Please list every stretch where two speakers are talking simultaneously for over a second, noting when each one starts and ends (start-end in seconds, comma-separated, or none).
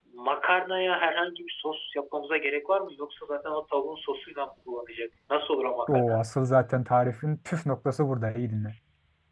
none